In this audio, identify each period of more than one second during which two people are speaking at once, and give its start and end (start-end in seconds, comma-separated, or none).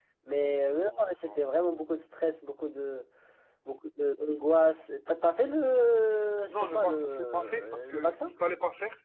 6.5-8.3